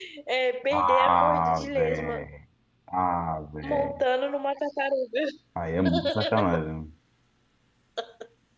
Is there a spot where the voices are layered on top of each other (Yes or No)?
Yes